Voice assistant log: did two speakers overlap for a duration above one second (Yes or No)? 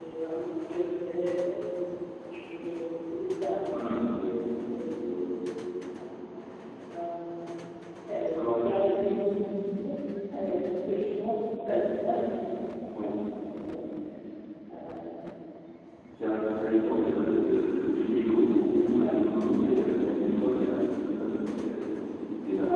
No